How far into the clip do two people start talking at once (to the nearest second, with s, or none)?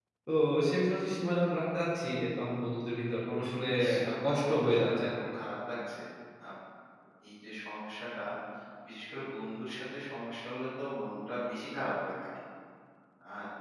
4 s